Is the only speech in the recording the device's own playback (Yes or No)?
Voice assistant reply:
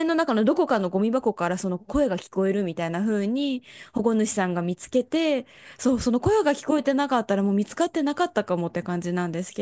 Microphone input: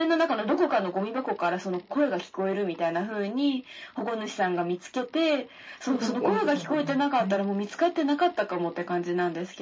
No